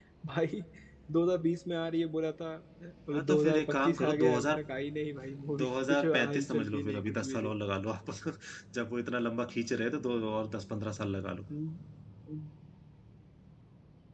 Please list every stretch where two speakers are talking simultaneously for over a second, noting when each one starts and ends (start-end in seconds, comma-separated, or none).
3.1-4.6, 5.6-7.5